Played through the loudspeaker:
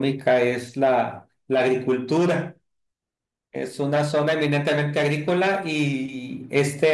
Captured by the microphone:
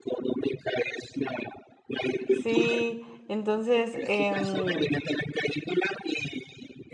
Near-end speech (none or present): present